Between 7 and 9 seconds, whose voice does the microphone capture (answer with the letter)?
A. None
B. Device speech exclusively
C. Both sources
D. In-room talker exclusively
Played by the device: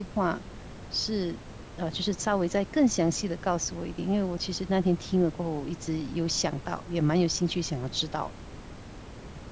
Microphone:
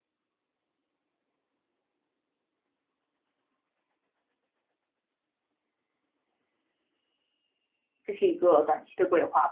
D